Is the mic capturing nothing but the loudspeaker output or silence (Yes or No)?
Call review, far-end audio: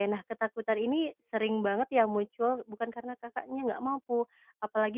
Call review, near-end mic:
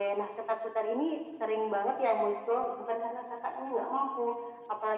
Yes